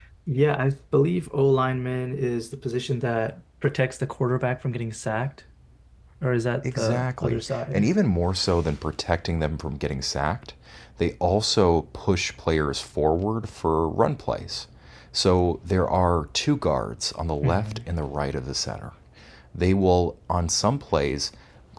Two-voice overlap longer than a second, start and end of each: 6.6-7.9

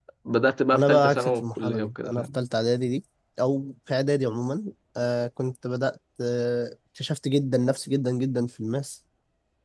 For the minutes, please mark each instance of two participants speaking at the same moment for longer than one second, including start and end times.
0.7-2.4

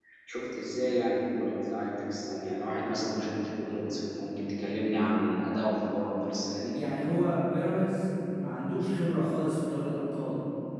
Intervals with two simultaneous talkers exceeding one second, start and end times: none

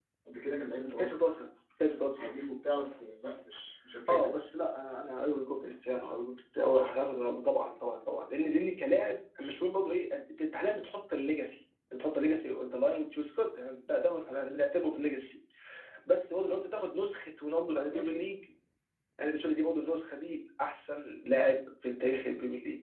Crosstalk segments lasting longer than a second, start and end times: none

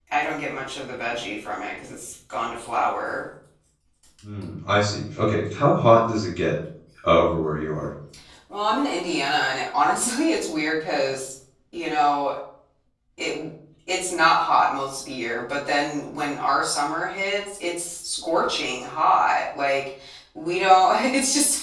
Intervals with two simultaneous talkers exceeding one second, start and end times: none

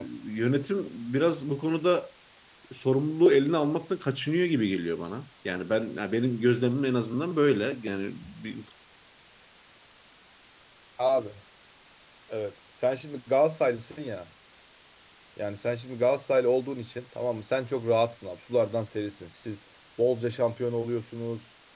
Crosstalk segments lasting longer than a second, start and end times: none

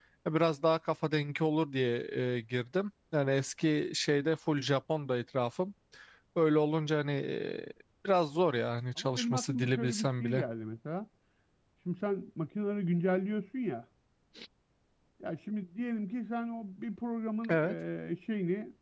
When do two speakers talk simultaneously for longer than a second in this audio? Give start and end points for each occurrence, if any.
9.0-10.4

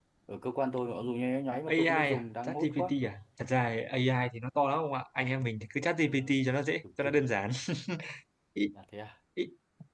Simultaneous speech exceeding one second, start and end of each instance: 1.7-2.9

